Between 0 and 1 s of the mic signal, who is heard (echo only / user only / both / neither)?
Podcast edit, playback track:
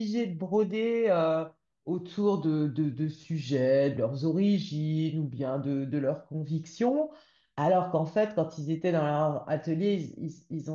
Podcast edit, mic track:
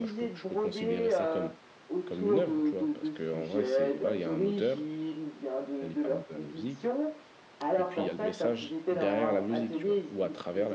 both